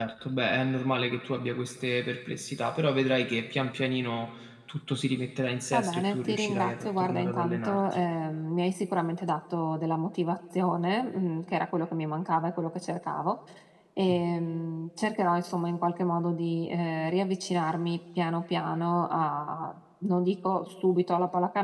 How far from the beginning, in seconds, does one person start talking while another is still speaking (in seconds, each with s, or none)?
5.7 s